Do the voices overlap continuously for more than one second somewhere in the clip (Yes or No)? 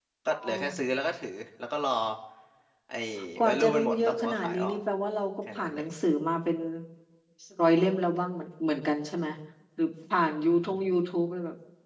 Yes